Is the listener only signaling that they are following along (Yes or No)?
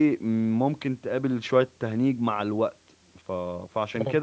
Yes